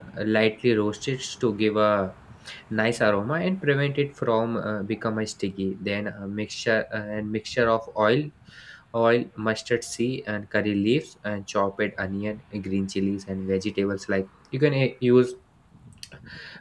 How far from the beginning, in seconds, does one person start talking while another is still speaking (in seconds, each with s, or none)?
none